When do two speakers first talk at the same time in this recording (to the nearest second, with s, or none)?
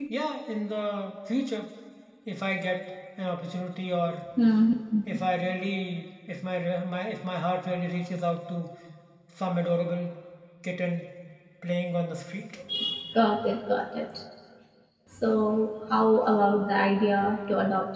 none